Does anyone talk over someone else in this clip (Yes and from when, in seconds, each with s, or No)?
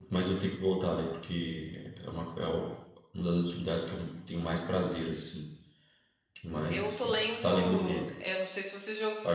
Yes, from 6.7 s